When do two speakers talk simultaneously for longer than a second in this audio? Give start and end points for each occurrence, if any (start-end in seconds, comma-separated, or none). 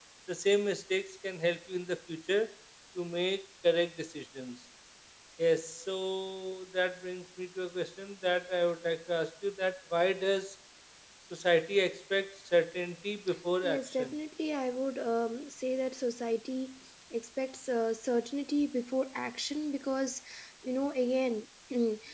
none